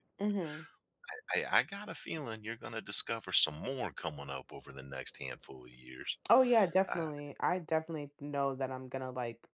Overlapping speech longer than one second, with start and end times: none

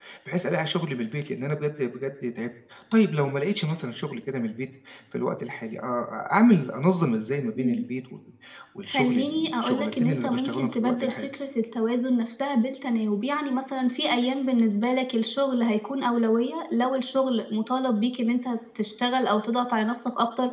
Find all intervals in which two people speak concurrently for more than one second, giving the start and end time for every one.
8.9-11.3

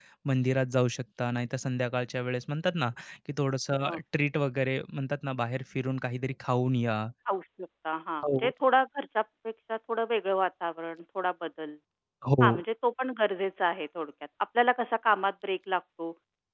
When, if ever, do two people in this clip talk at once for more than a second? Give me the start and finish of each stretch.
none

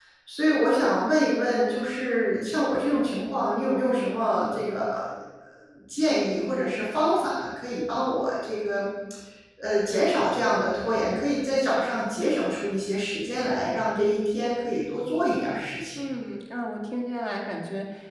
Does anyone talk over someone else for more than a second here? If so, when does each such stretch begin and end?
none

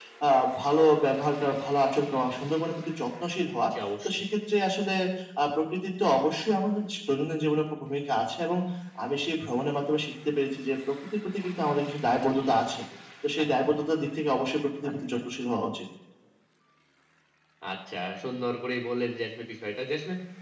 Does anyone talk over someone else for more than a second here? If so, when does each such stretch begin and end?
none

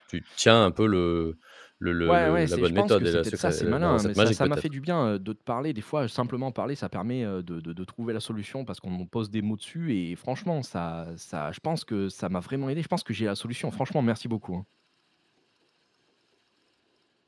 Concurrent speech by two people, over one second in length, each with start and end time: 2.1-4.6

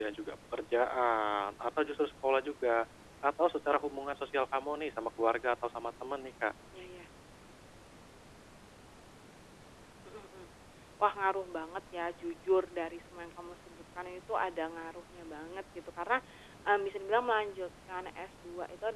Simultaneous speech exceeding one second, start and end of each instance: none

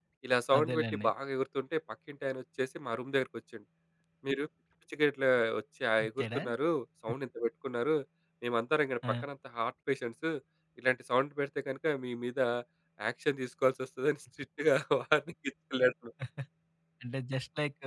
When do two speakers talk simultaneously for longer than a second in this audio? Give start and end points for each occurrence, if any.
none

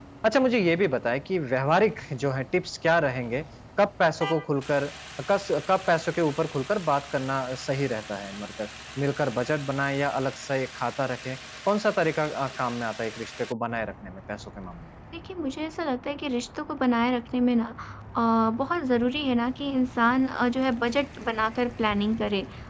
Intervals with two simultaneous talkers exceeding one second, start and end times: none

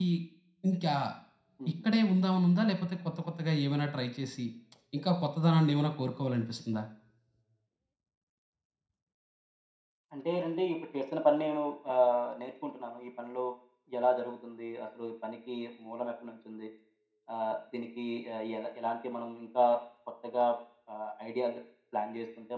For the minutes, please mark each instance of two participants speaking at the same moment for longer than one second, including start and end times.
none

